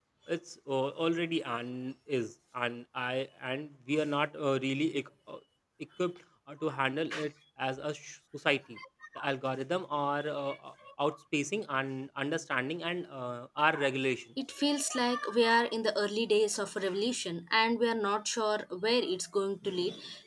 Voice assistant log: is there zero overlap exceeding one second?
Yes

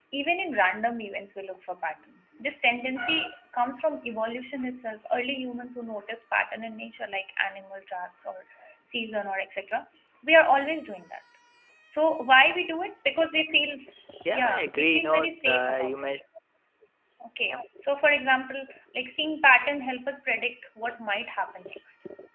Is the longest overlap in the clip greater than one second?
Yes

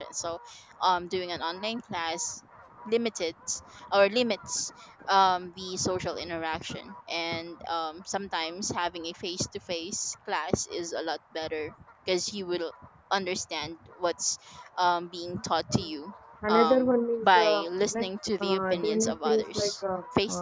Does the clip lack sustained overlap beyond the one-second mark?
No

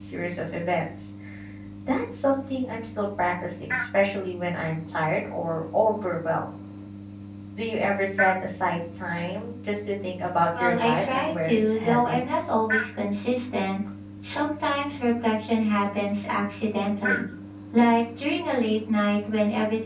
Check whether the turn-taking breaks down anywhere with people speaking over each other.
Yes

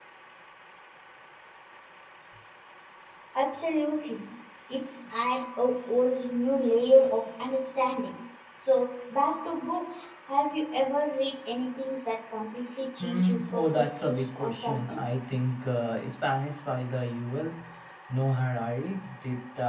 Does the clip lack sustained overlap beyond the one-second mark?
No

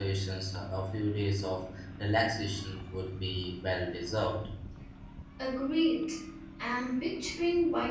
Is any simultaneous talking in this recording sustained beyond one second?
No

